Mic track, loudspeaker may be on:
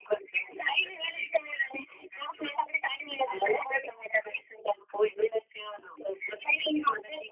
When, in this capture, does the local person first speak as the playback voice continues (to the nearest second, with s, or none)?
none